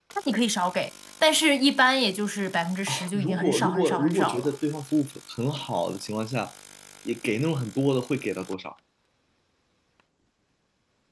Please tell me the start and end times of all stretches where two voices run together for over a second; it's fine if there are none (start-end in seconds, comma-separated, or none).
2.9-4.5